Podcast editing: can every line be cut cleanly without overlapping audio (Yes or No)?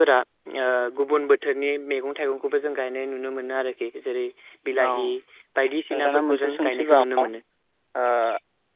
No